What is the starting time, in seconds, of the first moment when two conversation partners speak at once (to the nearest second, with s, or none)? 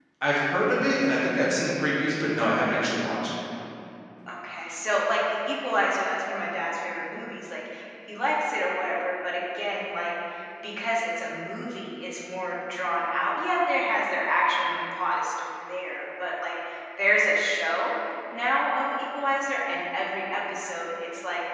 none